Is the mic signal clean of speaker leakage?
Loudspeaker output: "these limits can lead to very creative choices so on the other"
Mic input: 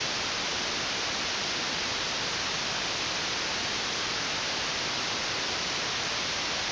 Yes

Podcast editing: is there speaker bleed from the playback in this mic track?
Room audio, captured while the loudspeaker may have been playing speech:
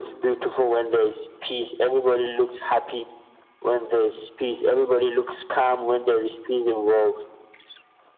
Yes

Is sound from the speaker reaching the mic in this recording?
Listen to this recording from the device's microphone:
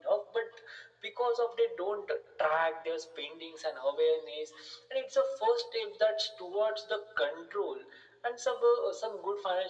Yes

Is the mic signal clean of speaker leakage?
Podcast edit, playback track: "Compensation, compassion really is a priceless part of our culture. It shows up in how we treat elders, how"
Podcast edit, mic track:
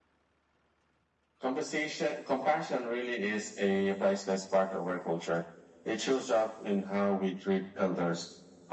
No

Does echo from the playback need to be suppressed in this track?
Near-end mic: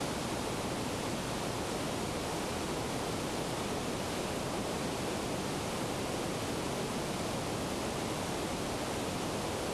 No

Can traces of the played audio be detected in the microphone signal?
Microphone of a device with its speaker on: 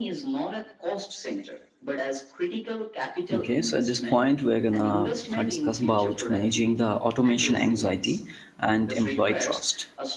Yes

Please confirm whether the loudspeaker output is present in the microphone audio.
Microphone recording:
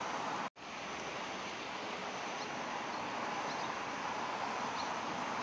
No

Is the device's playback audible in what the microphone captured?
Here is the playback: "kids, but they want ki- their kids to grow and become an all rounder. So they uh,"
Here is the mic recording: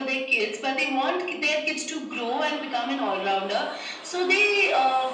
Yes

